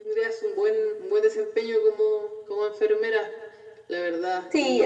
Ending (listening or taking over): taking over